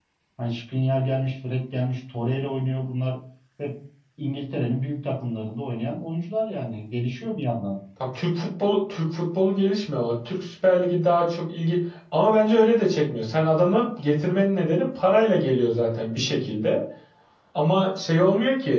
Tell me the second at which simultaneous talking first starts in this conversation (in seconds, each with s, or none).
none